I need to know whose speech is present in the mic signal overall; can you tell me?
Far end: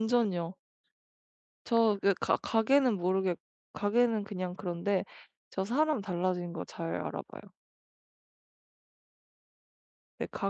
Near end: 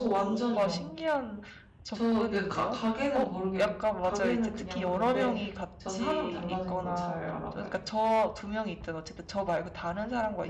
both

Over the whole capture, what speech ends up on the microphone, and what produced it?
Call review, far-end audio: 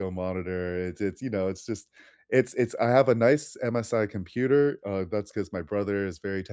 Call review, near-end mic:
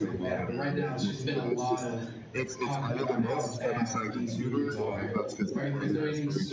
both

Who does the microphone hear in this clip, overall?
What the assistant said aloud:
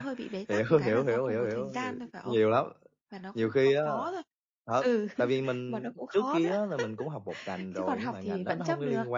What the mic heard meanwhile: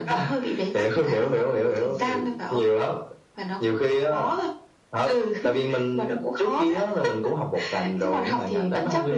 echo only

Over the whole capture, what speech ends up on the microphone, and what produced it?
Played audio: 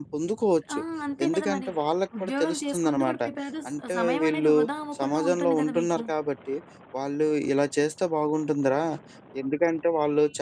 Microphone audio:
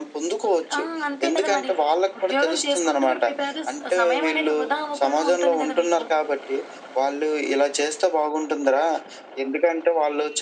echo only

